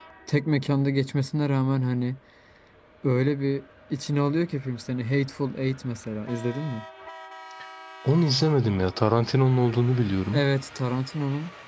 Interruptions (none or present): none